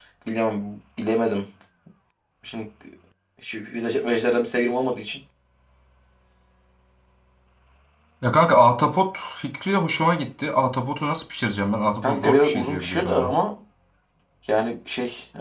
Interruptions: present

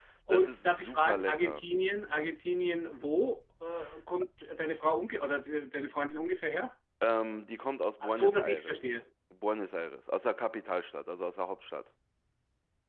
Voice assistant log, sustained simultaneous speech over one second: present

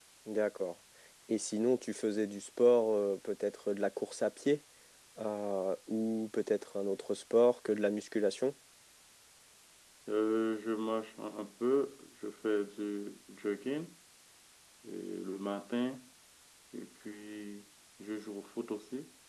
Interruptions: none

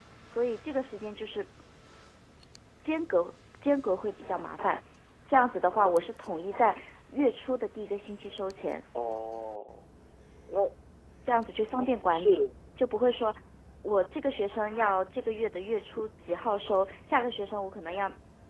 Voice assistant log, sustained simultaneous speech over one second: none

